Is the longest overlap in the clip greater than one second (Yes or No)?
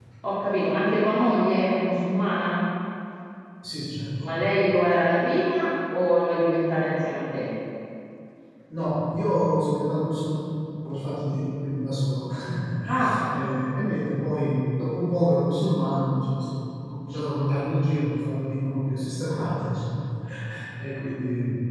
No